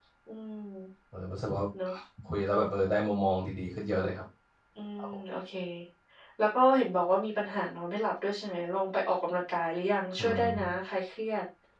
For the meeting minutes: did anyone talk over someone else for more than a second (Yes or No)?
No